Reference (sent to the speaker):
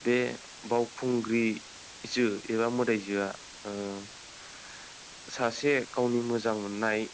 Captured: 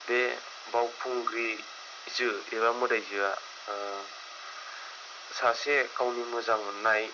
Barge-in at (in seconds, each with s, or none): none